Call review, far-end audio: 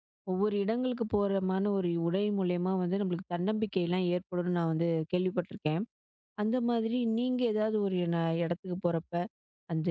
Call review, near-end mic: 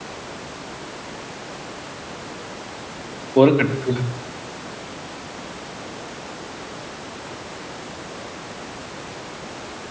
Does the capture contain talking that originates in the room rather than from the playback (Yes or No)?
Yes